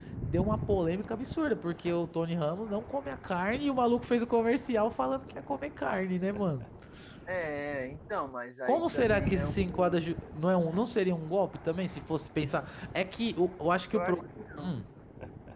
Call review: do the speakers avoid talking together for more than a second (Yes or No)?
No